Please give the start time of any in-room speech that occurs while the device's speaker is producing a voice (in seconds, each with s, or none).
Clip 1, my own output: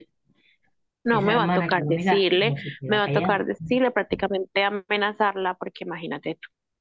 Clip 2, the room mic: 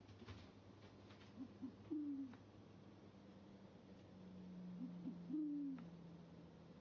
none